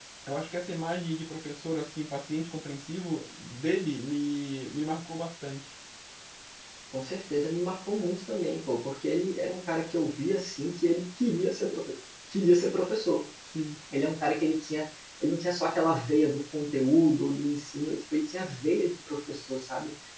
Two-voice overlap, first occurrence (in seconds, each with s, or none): none